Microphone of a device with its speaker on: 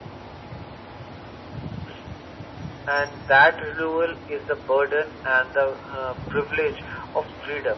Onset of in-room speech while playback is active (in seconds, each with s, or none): none